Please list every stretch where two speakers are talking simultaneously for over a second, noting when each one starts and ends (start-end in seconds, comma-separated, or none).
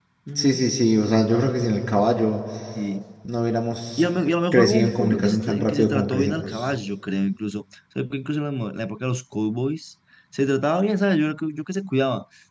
4.5-6.6